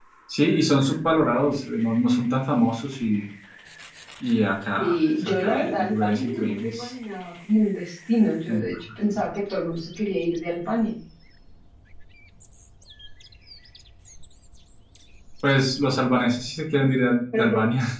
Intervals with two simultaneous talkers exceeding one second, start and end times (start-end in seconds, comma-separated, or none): 4.8-6.9